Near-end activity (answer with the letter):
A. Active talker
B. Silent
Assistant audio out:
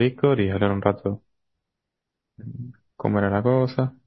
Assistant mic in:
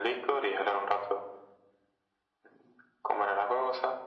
B